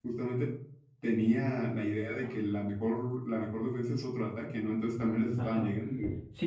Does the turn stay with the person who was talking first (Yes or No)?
No